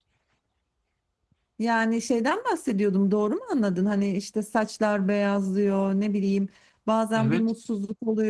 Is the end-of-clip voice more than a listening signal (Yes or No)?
No